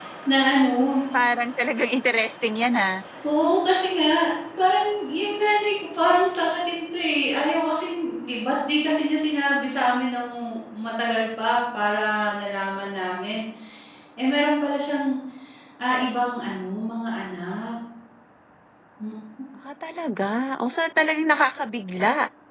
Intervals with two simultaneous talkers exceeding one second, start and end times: none

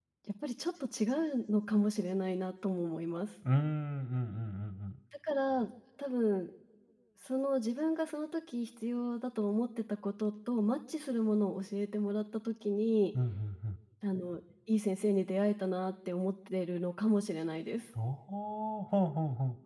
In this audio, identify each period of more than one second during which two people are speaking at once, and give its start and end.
none

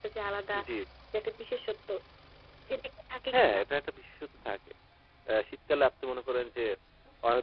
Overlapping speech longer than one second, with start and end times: none

